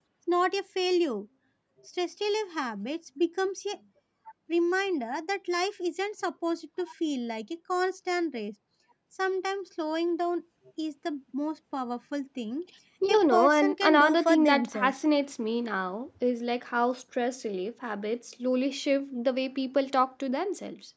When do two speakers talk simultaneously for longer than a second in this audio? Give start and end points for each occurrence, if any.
13.1-15.0

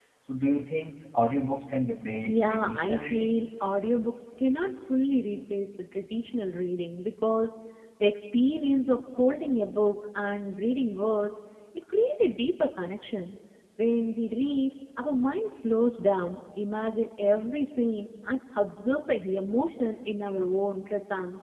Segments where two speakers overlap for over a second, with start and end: 2.2-3.4

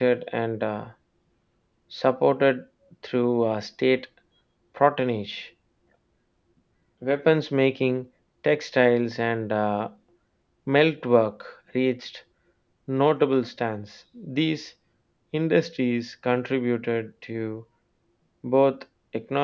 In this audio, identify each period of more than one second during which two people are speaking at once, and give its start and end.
none

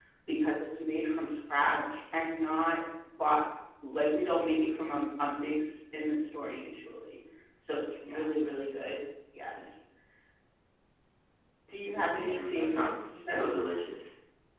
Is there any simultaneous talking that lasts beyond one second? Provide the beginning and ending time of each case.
12.1-13.8

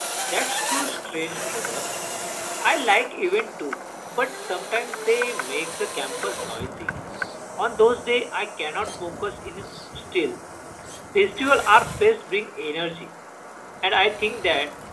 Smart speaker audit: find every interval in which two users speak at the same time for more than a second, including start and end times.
none

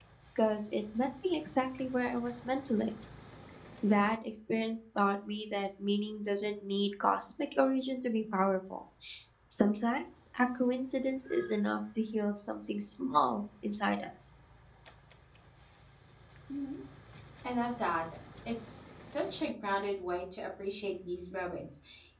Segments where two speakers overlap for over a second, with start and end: none

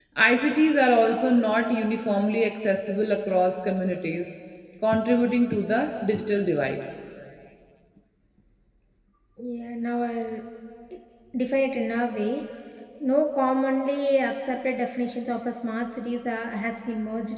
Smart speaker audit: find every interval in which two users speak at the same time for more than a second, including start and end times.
none

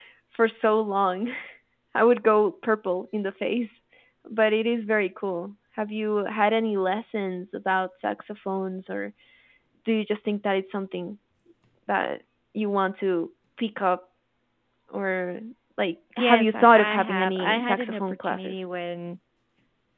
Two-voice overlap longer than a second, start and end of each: 16.2-18.6

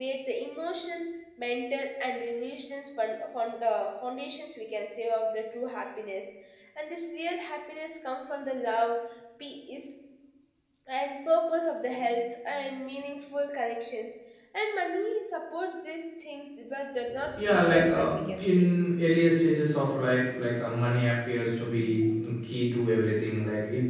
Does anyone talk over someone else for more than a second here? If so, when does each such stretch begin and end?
17.4-18.7

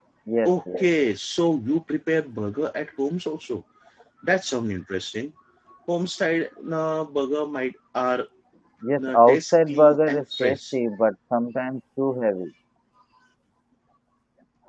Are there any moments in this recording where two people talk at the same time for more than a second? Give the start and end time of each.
9.1-10.7

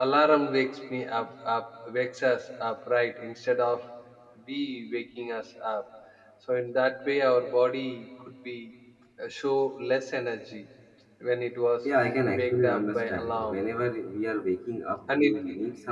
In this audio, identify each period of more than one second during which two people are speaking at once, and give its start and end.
12.3-13.7

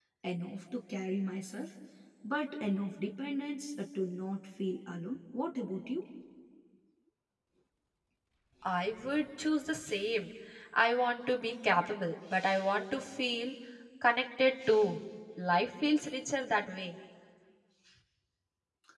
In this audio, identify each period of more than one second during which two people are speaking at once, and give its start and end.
none

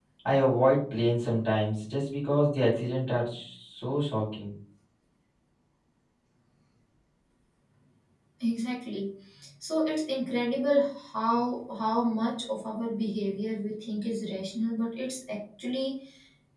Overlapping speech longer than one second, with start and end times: none

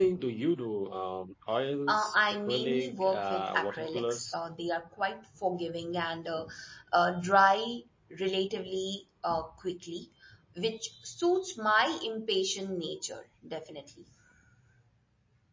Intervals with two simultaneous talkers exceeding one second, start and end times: 1.9-4.4

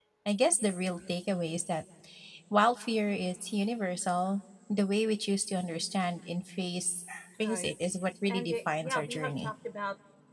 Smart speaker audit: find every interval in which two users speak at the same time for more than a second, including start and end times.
8.3-9.5

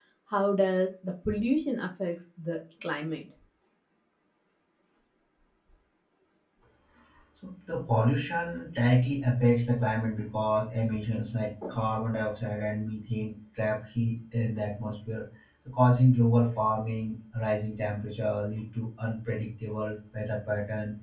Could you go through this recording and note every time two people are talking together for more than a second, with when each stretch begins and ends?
none

